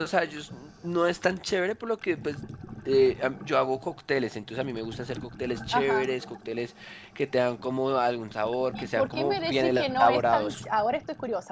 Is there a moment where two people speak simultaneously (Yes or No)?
Yes